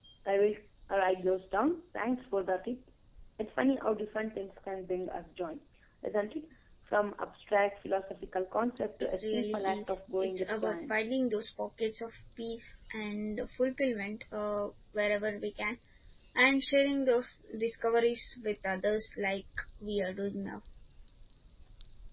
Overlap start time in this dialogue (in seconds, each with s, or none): 9.0 s